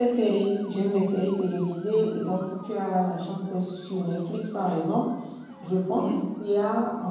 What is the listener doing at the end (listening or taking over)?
listening